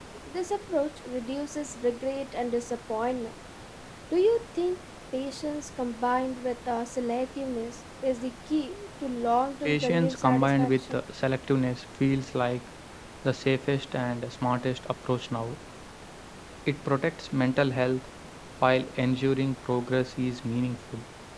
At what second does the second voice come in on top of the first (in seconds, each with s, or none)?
9.6 s